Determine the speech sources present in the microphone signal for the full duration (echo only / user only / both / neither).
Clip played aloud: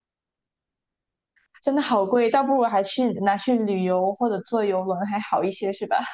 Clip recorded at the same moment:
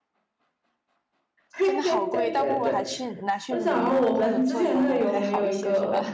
both